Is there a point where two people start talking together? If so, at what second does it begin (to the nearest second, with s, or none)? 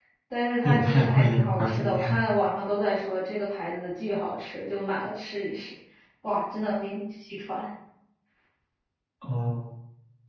1 s